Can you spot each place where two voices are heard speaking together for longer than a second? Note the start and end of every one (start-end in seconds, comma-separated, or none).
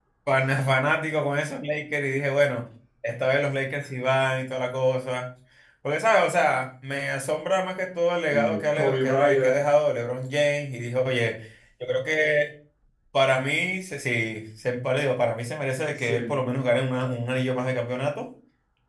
8.3-9.6